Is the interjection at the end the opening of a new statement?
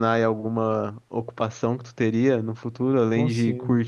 No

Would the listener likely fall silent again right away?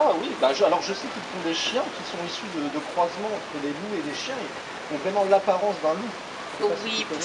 No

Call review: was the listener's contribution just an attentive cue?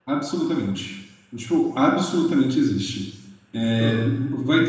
Yes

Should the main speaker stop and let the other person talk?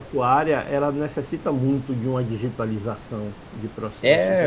Yes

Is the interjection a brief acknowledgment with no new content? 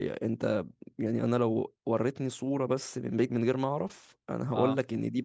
Yes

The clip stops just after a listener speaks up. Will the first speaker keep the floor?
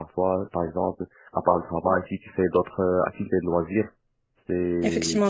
No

